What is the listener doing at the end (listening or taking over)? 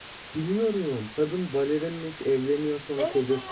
listening